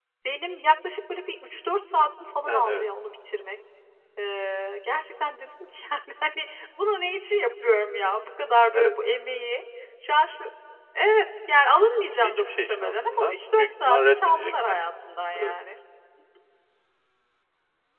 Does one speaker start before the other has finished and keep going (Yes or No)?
Yes